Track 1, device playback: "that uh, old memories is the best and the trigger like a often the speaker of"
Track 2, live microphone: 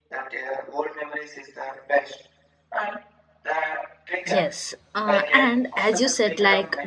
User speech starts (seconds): 4.2 s

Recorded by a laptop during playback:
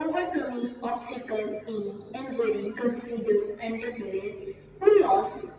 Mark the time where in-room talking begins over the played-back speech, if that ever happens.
none

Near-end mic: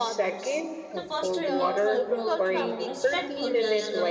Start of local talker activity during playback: 0.9 s

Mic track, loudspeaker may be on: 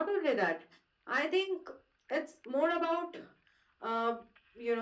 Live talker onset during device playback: none

